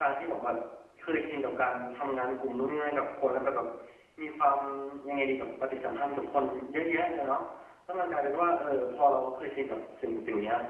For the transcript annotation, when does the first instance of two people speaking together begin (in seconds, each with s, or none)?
none